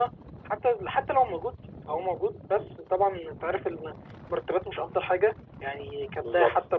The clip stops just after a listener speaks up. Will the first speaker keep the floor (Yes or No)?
No